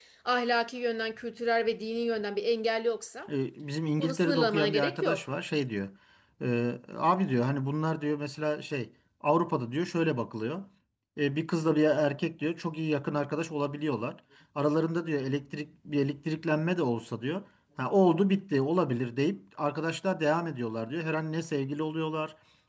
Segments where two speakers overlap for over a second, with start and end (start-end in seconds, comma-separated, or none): 4.0-5.2